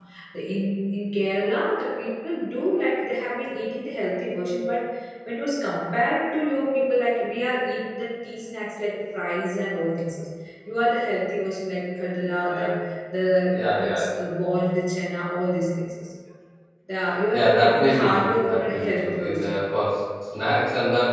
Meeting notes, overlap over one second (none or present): present